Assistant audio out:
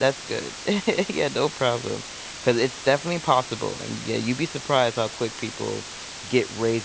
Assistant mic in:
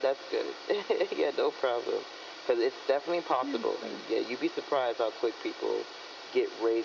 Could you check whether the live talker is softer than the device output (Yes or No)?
Yes